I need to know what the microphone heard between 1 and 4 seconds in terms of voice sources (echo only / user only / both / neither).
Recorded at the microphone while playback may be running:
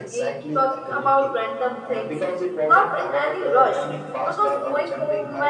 both